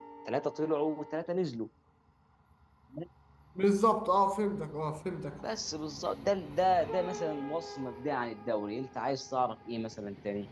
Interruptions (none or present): none